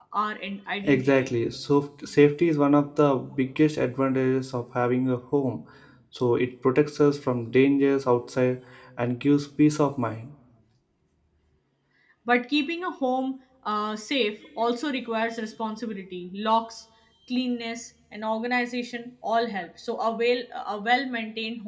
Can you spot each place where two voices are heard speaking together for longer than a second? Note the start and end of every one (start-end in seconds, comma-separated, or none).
none